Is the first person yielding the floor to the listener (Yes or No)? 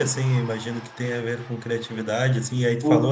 No